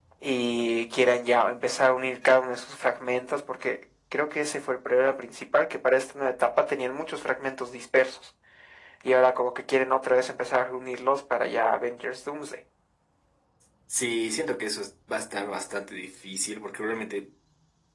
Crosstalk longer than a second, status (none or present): none